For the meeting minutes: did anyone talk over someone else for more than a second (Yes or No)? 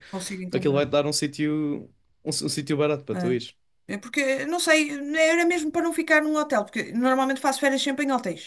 No